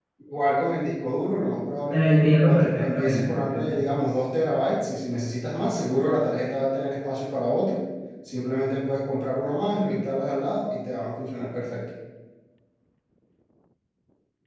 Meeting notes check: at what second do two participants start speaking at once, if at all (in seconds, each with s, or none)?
1.9 s